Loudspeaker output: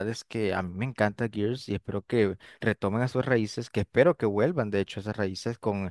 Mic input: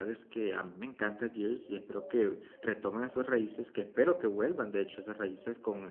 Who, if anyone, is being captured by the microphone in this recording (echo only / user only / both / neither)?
echo only